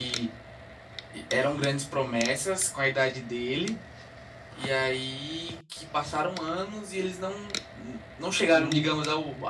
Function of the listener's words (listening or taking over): listening